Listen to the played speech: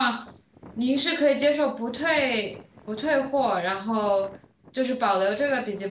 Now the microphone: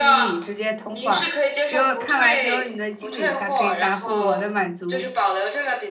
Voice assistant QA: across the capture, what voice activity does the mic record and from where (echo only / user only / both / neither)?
both